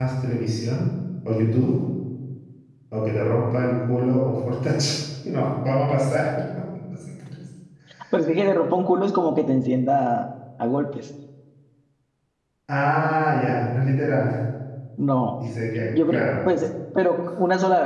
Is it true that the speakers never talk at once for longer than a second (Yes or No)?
Yes